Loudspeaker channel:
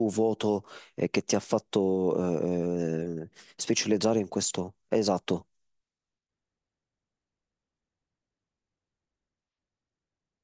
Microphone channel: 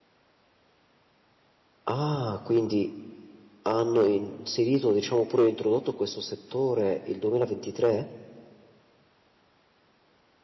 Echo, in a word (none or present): none